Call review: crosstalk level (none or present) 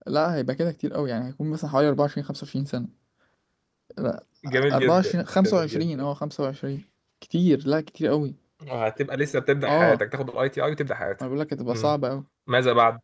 present